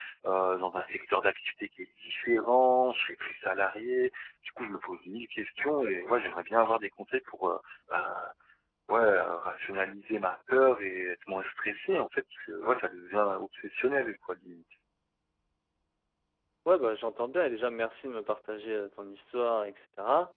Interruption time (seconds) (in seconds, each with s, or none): none